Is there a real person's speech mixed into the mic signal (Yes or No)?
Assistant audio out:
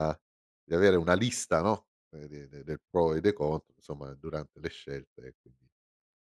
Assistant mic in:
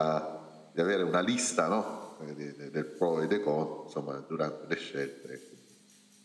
No